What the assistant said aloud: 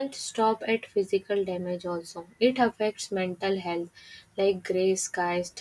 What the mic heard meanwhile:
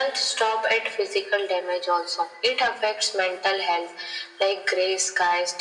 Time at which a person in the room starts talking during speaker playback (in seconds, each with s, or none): none